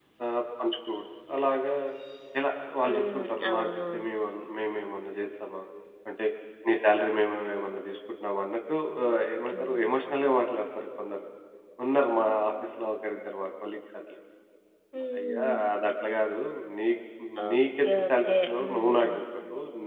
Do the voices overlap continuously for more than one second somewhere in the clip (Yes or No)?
Yes